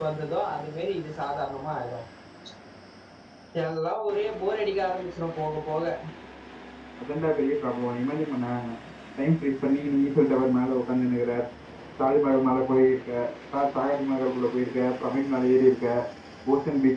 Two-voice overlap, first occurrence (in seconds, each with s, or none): none